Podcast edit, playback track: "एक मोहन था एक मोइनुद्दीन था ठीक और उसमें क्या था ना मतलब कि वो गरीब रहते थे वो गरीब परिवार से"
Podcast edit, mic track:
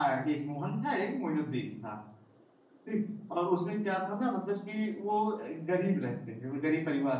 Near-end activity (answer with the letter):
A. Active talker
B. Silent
B